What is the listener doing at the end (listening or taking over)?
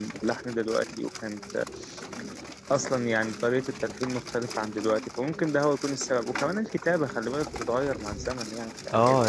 taking over